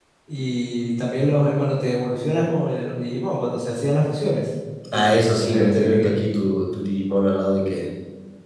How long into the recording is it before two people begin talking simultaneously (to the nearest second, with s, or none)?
5 s